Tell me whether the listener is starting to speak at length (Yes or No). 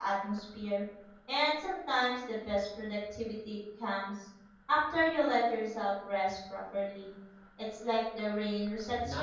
Yes